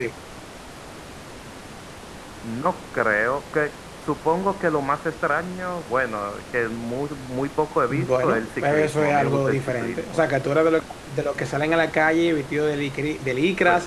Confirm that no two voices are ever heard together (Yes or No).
No